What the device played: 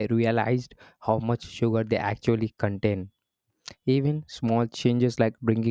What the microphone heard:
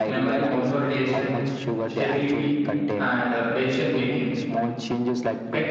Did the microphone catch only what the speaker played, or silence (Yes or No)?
No